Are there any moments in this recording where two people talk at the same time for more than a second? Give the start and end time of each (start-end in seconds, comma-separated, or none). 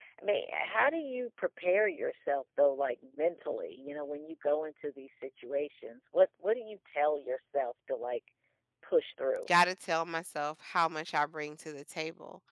none